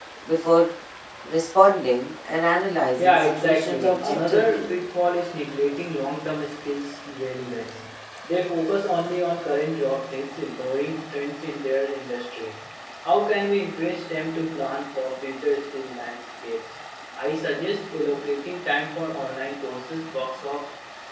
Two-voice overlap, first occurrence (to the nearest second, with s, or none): 3 s